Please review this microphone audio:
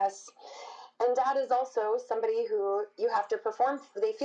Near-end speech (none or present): none